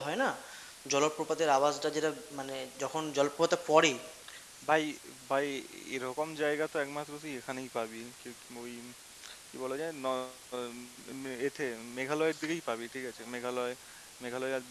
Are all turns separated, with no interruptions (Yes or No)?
Yes